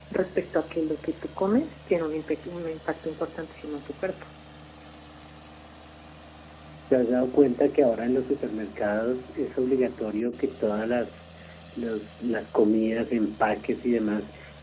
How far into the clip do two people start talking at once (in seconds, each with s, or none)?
none